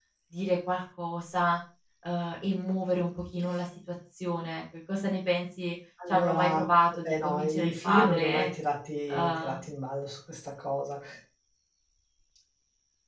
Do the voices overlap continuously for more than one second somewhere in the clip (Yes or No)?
Yes